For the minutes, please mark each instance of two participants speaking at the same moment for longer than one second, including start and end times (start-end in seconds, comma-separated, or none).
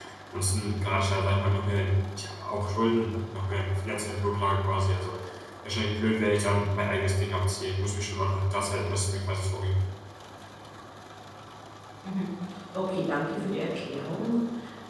none